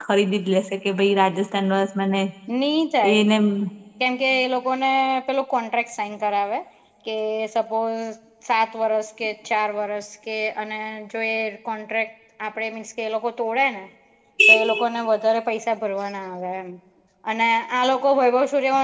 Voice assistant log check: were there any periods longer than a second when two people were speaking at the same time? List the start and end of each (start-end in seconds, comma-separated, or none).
none